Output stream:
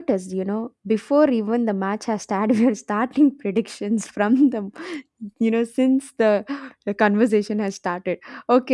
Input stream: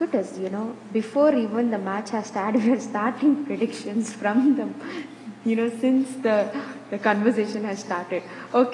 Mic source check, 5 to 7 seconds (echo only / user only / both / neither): echo only